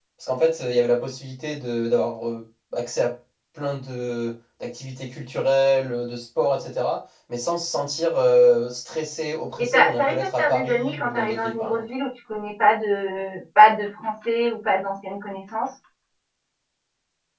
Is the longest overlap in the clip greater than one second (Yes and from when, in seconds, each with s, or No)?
Yes, from 9.6 s